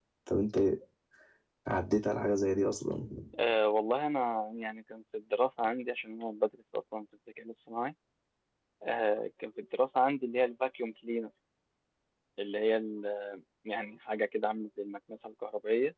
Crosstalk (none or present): none